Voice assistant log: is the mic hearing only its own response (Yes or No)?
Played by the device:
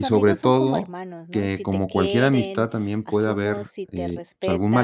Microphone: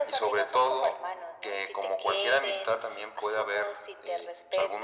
Yes